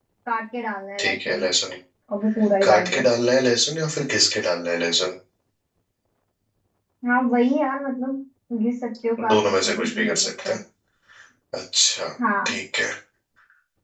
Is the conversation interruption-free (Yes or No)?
No